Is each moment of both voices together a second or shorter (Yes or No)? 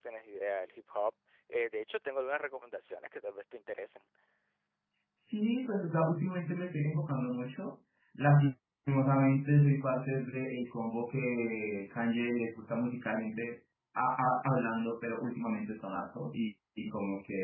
Yes